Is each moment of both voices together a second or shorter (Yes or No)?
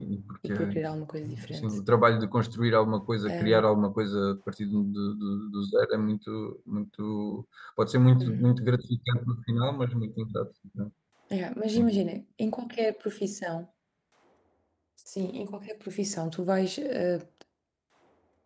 Yes